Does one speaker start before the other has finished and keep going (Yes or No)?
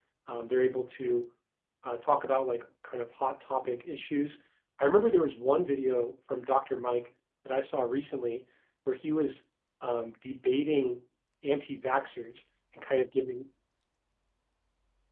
No